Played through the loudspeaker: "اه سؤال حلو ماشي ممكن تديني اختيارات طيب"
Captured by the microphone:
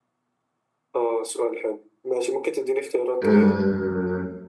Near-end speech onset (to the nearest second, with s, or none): 3 s